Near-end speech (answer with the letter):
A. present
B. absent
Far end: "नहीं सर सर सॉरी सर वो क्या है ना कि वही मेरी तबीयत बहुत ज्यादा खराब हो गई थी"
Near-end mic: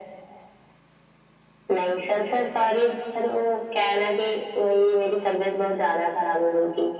B